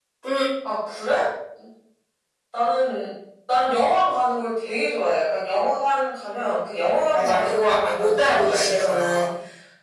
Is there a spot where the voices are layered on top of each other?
Yes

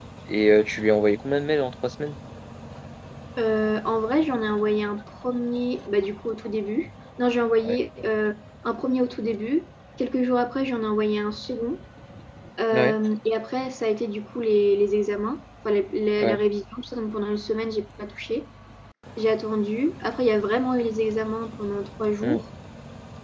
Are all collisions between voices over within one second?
Yes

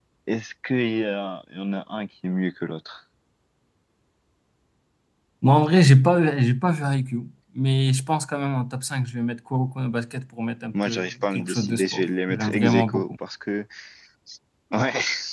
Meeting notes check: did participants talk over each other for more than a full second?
Yes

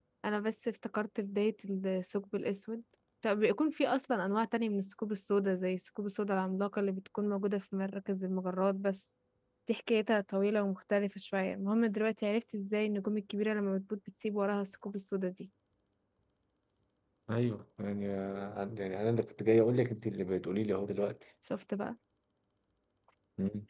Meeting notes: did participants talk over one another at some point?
No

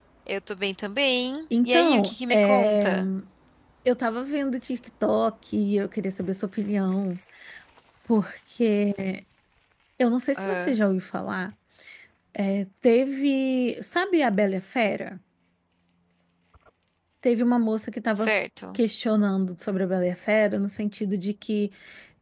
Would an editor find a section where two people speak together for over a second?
Yes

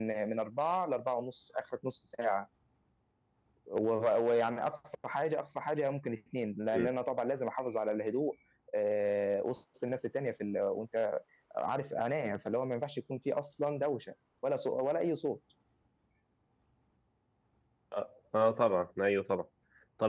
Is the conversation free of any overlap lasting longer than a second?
Yes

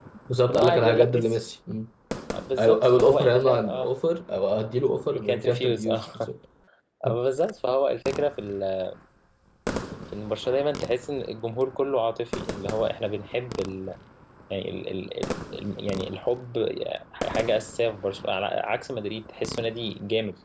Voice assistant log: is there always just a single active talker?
No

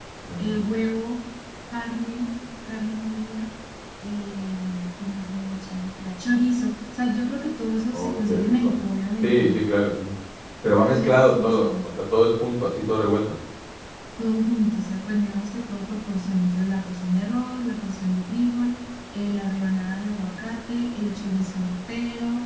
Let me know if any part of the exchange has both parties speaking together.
Yes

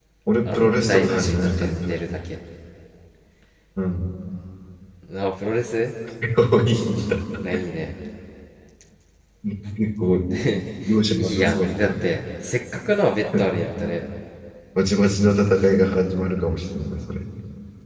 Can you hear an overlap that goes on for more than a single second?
Yes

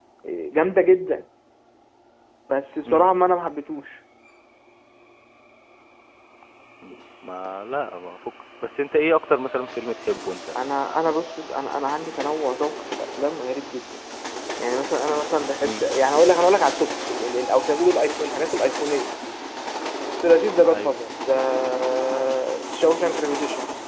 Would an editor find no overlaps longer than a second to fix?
Yes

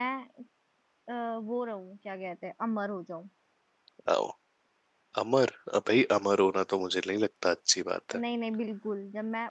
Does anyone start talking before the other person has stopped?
No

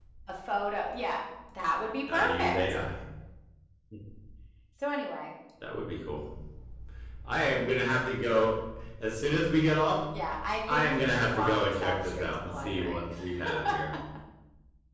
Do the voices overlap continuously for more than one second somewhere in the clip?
Yes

